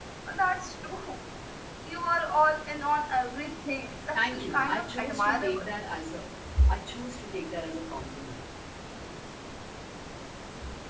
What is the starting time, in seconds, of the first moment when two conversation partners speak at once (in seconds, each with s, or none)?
4.1 s